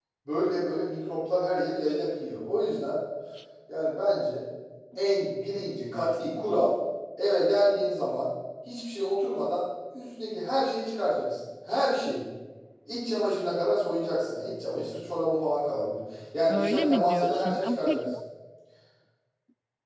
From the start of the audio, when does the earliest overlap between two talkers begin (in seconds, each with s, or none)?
16.5 s